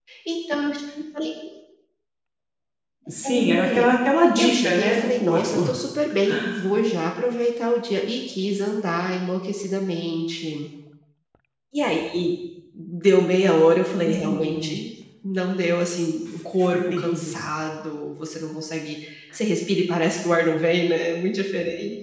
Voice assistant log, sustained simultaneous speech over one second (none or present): present